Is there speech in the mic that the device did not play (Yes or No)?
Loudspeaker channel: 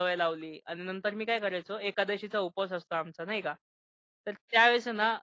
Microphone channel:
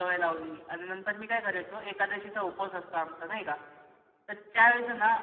No